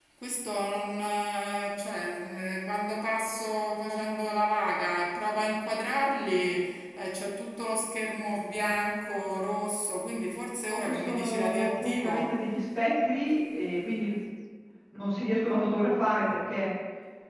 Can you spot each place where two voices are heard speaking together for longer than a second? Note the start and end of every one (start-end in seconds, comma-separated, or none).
10.8-12.3